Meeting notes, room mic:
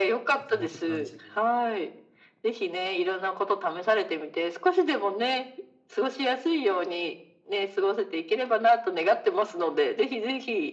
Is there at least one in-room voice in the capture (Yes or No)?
Yes